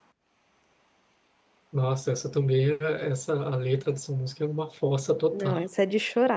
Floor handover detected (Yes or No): Yes